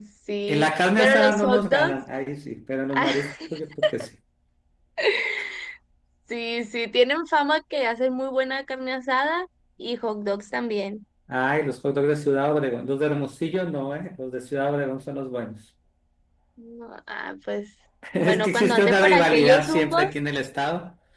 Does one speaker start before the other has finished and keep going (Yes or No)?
Yes